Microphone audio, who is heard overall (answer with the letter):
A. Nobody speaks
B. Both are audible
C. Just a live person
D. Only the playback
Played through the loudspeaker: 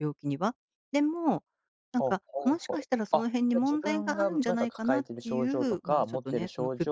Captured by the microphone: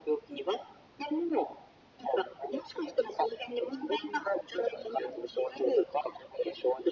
B